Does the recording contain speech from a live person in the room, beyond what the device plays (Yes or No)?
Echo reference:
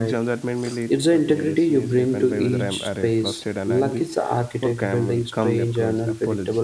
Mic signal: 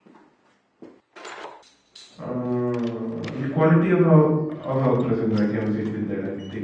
Yes